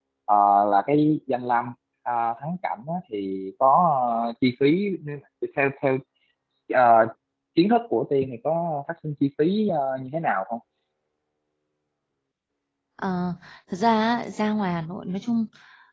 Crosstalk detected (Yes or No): No